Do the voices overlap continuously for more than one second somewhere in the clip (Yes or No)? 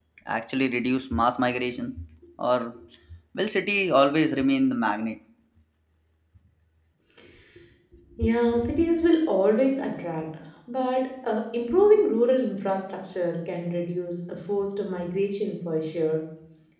No